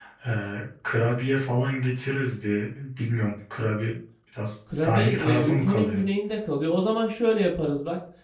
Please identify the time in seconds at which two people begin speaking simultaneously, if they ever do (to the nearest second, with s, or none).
5 s